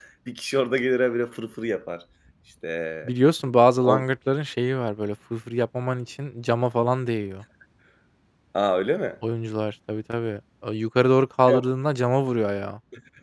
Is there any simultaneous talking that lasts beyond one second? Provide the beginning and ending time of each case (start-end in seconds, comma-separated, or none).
none